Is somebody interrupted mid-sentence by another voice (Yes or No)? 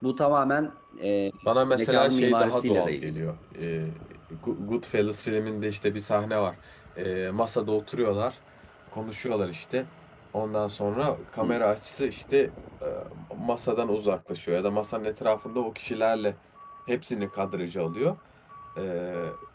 Yes